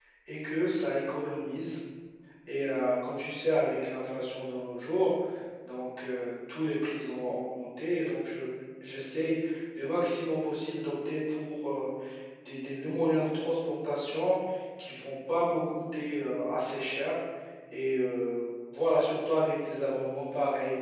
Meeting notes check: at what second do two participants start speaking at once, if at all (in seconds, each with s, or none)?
none